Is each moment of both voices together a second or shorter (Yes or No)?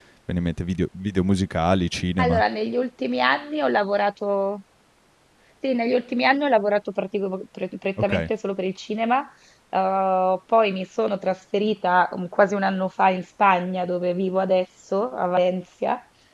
Yes